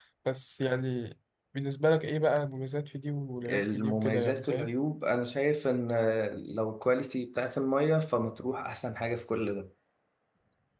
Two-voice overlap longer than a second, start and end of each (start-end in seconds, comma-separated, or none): 3.5-4.7